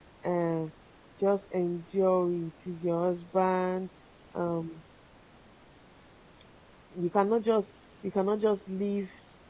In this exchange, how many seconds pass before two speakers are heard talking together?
none

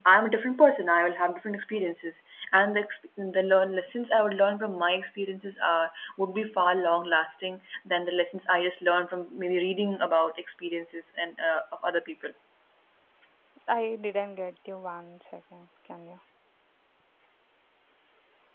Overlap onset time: none

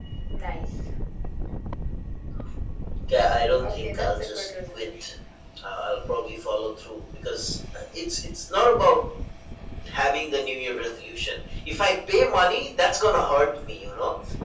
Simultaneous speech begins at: 3.6 s

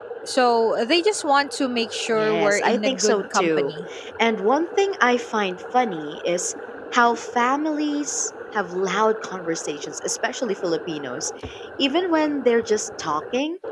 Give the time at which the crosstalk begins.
2.1 s

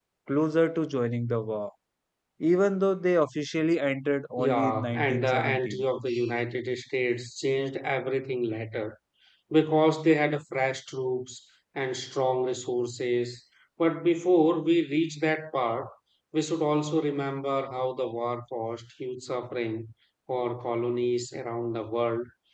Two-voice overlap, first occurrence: 4.4 s

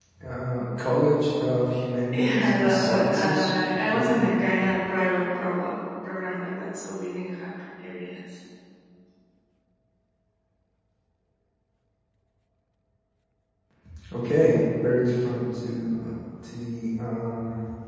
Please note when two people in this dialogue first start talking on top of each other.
2.1 s

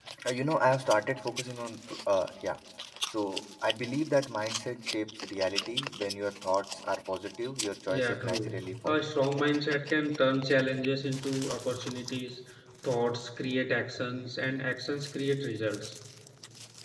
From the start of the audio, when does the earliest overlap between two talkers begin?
7.9 s

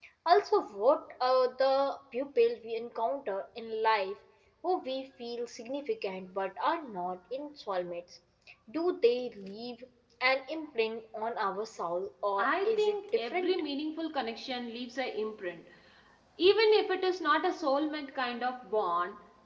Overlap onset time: 12.4 s

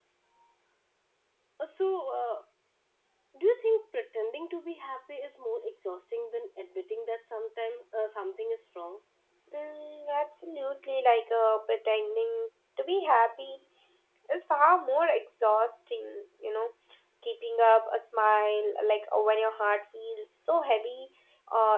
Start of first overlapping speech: none

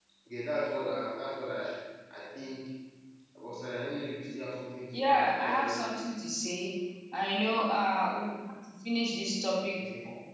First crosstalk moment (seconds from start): 4.9 s

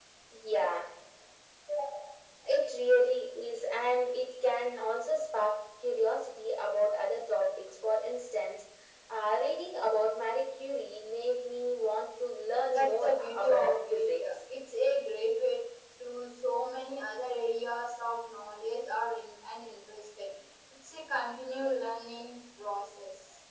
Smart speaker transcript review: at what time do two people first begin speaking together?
12.7 s

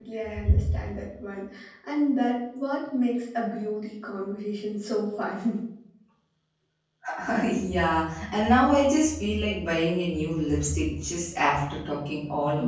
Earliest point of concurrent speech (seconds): none

